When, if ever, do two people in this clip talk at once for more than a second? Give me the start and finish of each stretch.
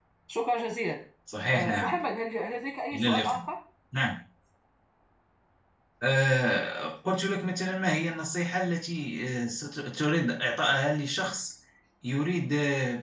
none

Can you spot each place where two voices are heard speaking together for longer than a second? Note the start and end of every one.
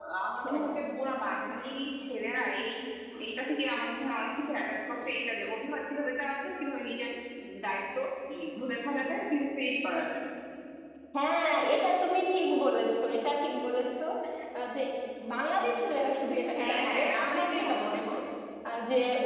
16.6-18.0

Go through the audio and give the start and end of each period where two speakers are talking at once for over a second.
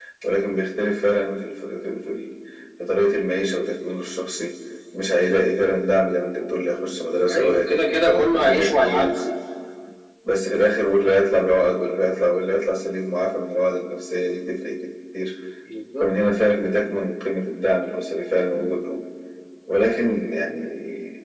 7.3-9.2

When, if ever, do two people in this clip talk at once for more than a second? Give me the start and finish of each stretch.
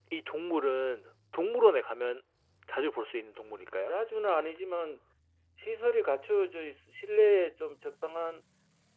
none

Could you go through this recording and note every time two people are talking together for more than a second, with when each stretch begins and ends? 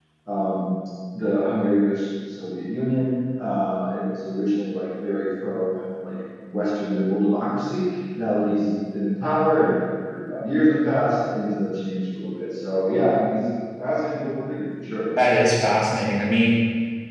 none

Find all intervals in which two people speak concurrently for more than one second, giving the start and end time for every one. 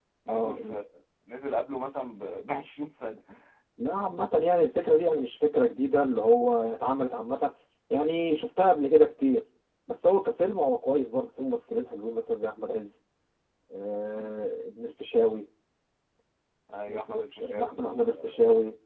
16.9-18.4

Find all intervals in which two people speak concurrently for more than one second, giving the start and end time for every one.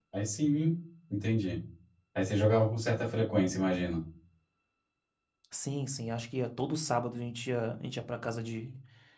none

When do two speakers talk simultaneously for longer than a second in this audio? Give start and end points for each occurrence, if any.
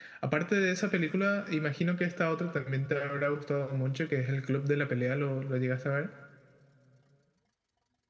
none

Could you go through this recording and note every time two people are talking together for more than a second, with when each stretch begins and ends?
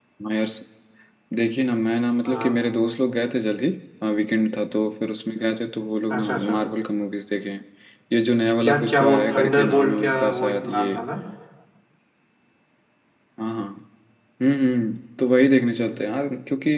8.7-10.9

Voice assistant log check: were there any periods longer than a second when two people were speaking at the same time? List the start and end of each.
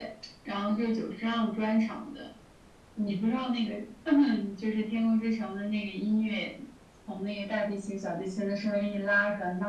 none

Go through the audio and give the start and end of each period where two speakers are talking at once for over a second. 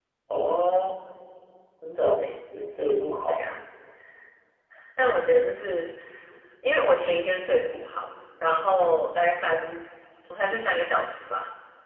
none

